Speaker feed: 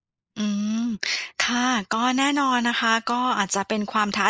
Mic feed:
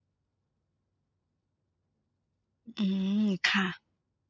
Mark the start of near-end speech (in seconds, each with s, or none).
2.8 s